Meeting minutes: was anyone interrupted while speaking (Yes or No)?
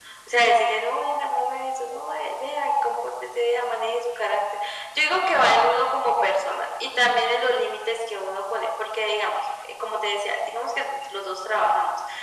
No